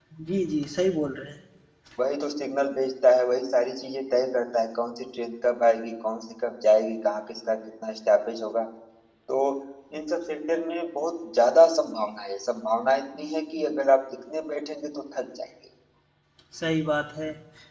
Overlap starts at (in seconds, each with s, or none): none